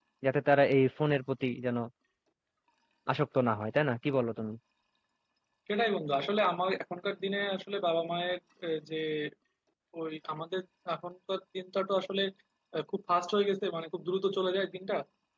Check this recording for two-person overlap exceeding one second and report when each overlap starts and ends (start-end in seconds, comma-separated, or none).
none